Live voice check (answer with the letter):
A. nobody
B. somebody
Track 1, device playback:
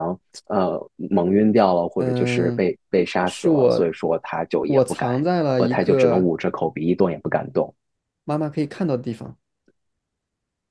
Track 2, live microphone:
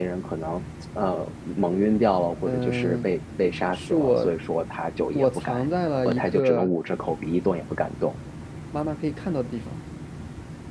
A